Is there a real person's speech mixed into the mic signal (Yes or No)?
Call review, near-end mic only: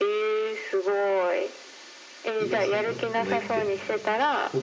Yes